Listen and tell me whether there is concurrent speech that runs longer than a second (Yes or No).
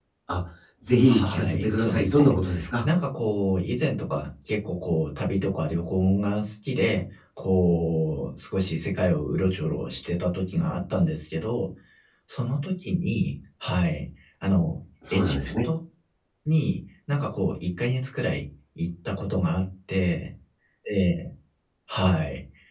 Yes